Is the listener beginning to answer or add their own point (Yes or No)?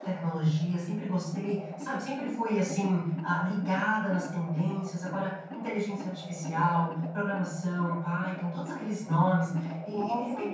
Yes